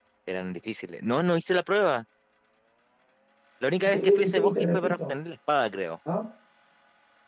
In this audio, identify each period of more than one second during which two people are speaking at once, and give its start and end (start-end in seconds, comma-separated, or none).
3.8-5.1